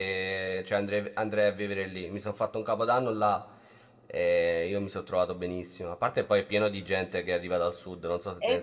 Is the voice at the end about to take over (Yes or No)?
Yes